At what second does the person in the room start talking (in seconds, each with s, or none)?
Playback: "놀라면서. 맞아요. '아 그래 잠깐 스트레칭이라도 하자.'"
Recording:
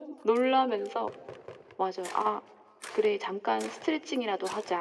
none